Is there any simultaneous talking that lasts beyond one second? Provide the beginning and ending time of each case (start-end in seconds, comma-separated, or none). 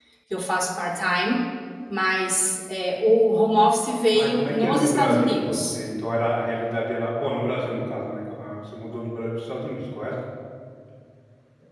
4.1-5.8